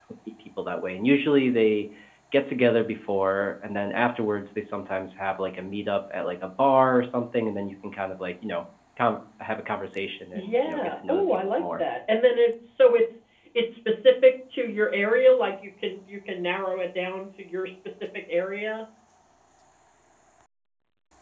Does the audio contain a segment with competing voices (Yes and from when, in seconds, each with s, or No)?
Yes, from 10.3 s